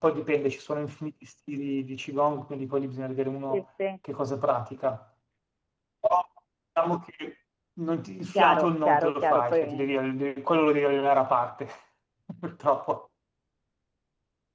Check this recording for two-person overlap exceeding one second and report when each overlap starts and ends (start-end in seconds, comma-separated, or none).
8.3-9.9